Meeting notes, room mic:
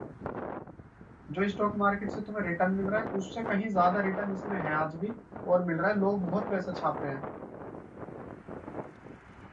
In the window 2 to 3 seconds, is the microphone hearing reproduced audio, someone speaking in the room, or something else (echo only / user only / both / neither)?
user only